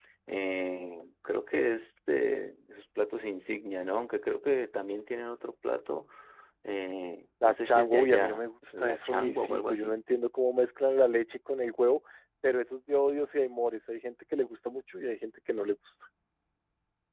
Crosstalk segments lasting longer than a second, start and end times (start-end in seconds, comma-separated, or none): 7.4-9.9